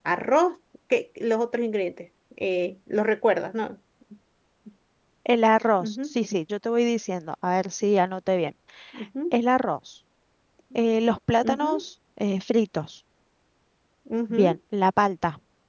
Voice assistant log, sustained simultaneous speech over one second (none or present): none